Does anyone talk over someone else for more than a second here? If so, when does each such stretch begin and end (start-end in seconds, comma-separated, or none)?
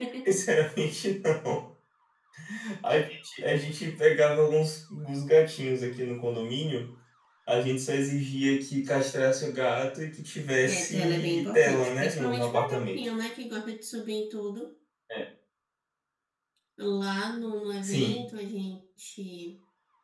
10.7-13.0